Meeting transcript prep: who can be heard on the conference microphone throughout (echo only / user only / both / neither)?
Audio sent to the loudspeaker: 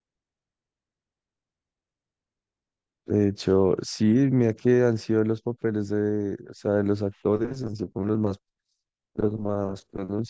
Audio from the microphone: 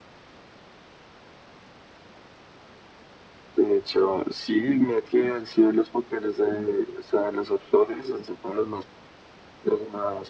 echo only